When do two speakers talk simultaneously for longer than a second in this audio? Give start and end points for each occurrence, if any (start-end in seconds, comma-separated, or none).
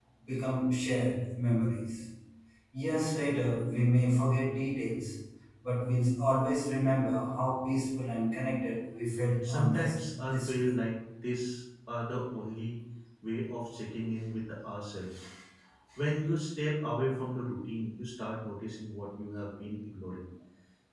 9.4-10.7